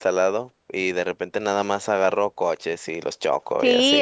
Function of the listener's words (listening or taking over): taking over